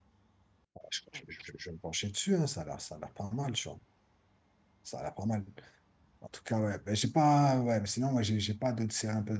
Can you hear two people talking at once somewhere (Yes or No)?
No